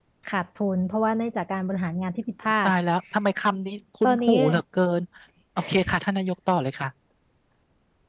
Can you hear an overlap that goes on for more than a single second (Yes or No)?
No